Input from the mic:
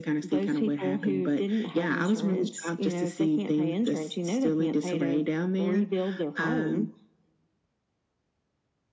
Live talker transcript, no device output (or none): none